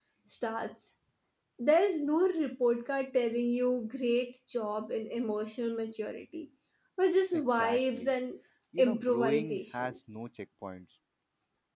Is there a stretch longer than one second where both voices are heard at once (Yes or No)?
Yes